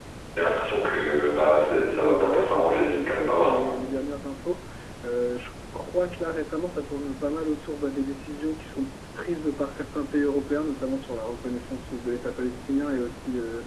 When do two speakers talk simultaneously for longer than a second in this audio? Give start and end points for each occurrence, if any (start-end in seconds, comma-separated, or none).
2.0-3.6